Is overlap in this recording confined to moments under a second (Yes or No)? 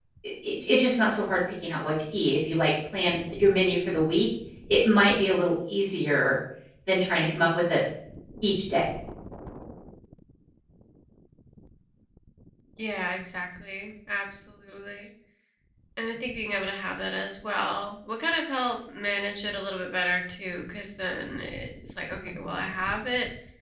Yes